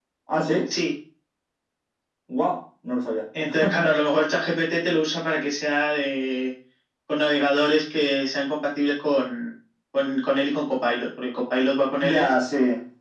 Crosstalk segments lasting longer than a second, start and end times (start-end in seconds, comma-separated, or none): none